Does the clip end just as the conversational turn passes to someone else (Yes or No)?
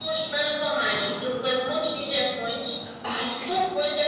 No